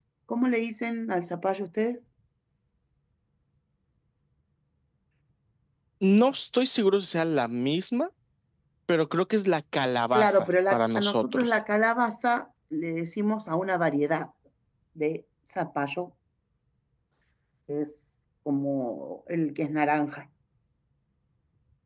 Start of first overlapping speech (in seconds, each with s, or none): 10.1 s